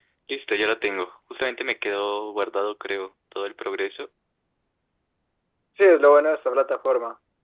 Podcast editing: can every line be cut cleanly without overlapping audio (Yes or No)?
Yes